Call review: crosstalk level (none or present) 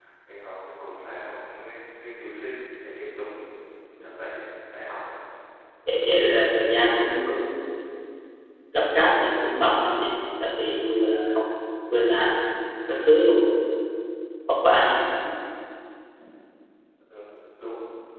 none